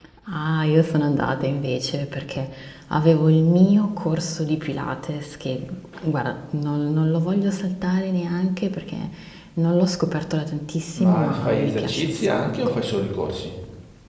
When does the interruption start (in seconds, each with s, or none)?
11.0 s